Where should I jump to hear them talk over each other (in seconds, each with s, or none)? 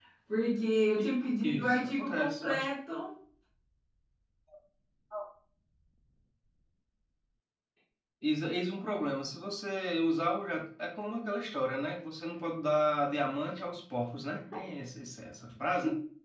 1.4 s